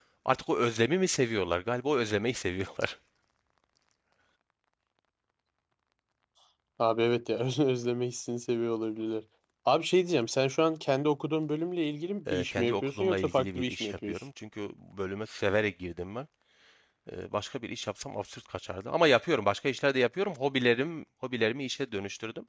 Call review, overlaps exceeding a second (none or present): present